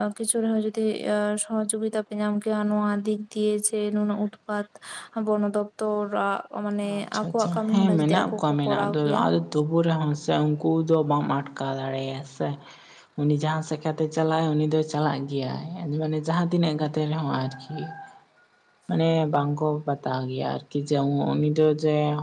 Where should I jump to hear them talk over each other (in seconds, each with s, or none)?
6.8 s